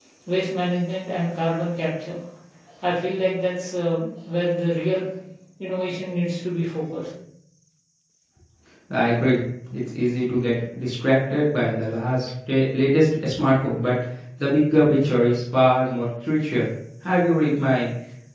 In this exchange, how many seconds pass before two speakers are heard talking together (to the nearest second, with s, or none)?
none